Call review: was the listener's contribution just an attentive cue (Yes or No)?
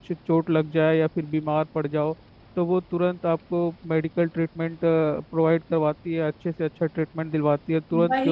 No